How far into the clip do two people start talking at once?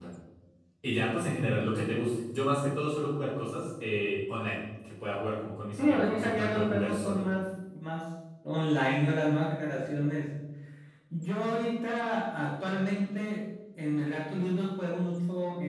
5.8 s

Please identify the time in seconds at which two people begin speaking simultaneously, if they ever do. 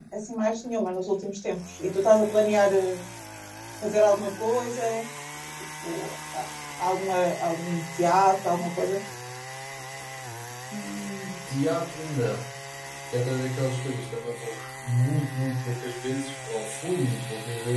none

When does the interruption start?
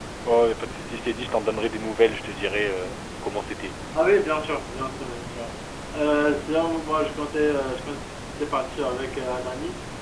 none

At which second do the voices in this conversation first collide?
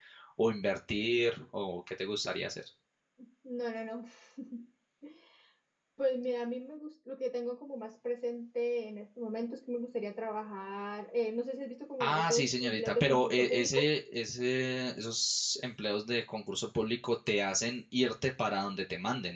12.0 s

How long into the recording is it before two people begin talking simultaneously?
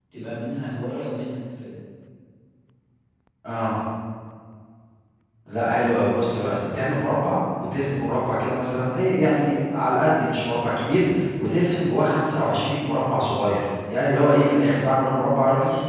none

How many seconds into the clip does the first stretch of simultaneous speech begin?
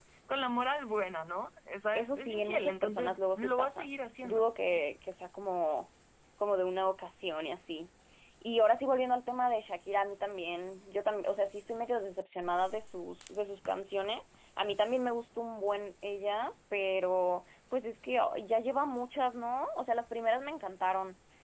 1.9 s

